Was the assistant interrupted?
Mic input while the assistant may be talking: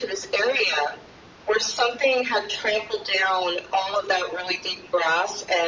No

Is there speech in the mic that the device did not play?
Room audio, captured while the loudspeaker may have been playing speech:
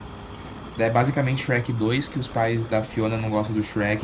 Yes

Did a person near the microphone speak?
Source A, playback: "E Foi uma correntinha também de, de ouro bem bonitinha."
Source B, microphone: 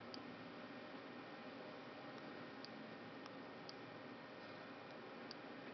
No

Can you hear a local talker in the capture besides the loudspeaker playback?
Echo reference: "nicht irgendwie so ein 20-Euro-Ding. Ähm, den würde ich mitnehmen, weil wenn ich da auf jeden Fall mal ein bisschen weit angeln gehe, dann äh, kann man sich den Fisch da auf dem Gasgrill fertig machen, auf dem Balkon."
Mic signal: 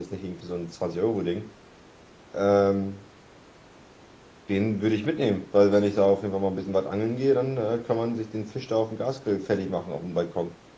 No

